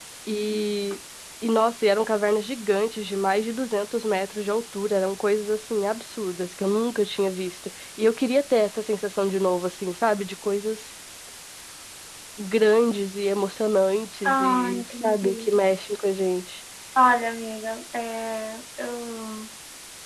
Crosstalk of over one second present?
Yes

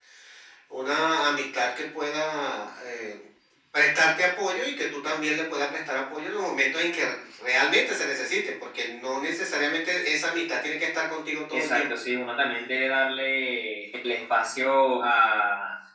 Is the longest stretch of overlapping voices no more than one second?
Yes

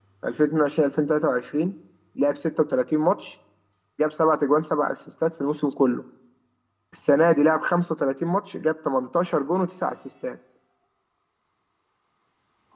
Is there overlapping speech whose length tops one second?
No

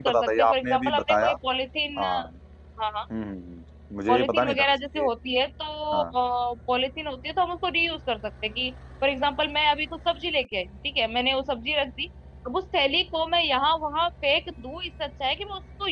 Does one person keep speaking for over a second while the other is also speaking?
Yes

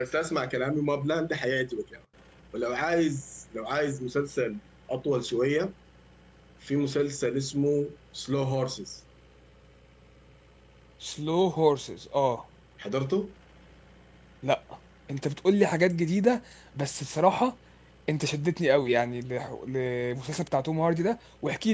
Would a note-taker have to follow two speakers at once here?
No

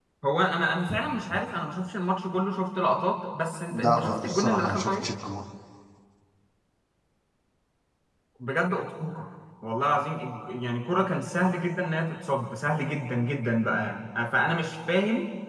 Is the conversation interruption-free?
No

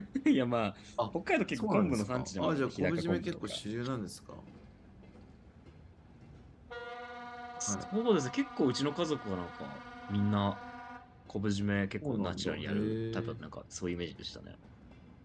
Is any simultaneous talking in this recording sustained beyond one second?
Yes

